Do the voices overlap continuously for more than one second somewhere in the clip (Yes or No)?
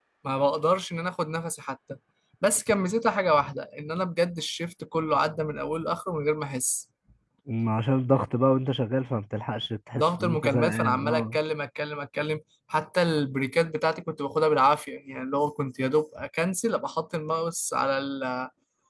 Yes